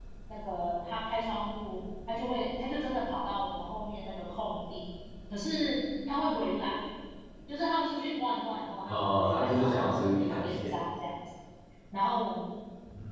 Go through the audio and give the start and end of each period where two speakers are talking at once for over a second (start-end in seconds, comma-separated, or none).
8.8-10.7